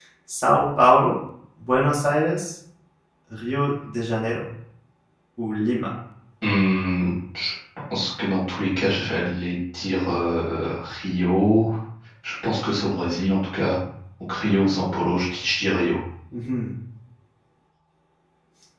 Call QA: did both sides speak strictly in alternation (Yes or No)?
Yes